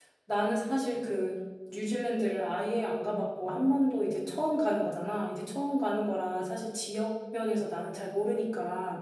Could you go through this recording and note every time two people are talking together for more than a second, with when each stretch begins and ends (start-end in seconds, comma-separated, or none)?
none